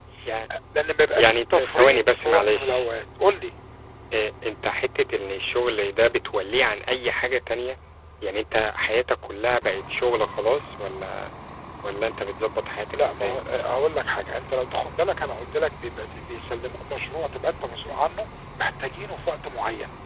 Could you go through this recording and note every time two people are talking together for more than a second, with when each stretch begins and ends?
1.2-2.8

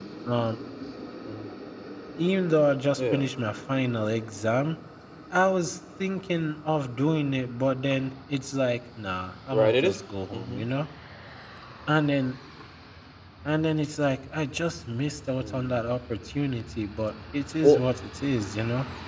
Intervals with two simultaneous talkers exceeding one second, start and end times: none

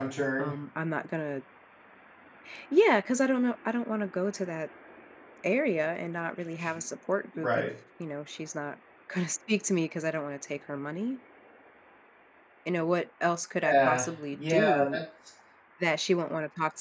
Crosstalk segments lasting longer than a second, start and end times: 13.7-15.0

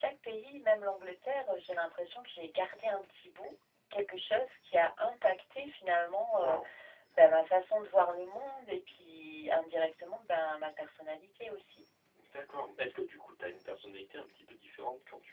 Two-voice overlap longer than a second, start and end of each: none

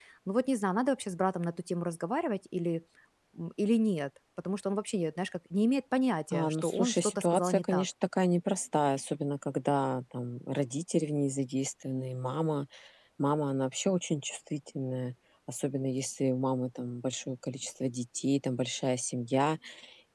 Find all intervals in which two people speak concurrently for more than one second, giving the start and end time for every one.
6.3-7.8

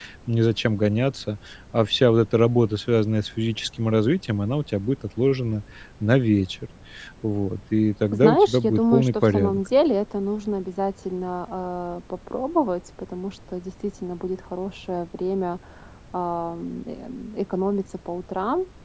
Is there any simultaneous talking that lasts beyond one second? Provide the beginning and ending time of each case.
8.1-9.6

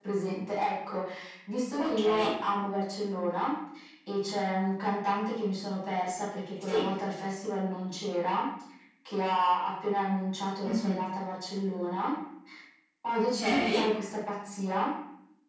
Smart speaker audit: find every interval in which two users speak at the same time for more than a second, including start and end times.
none

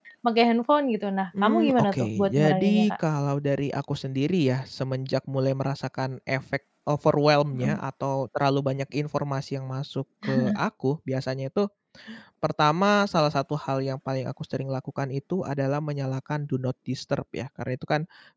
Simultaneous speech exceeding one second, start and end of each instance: 1.4-2.9

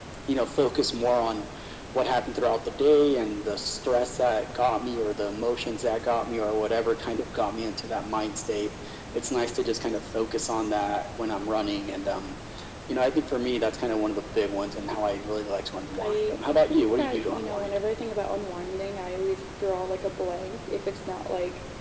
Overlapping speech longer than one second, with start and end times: 16.0-17.7

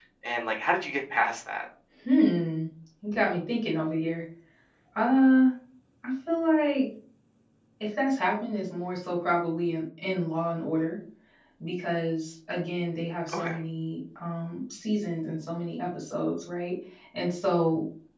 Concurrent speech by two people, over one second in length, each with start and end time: none

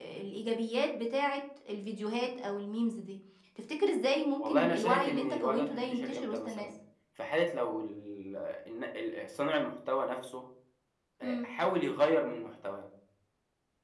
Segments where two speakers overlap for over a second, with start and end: 4.4-6.7

